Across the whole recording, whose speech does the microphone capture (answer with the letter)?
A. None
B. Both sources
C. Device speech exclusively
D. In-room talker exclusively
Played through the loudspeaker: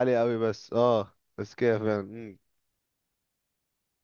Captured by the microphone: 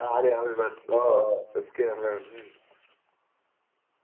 B